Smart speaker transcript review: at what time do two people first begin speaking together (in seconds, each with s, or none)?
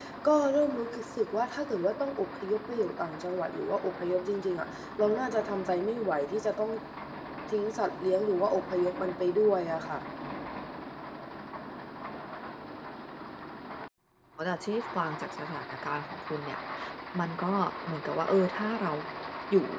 none